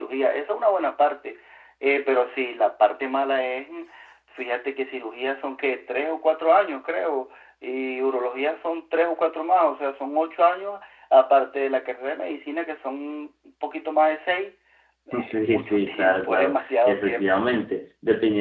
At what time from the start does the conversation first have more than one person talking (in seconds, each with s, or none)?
15.2 s